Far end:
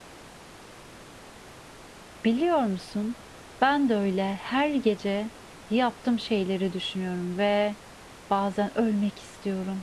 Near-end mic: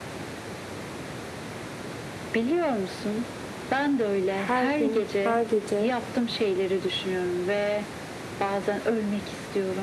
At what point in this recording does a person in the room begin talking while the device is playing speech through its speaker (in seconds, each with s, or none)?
4.3 s